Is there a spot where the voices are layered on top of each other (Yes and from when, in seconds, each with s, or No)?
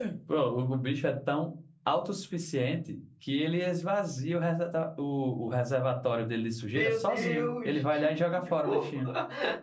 Yes, from 6.7 s